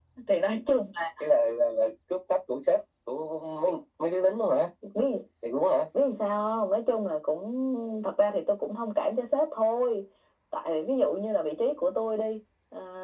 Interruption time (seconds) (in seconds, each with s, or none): none